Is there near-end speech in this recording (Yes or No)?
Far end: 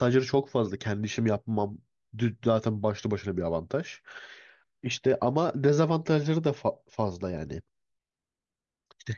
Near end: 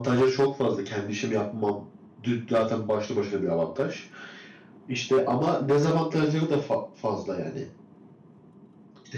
No